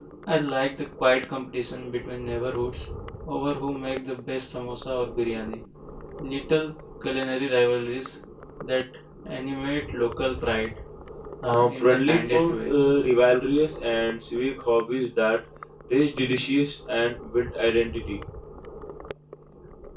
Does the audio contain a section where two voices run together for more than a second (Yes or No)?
Yes